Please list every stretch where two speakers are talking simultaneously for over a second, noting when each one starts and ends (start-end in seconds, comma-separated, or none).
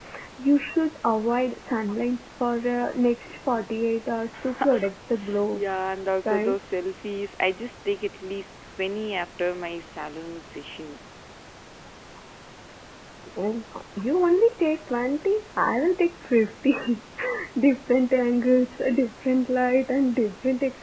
none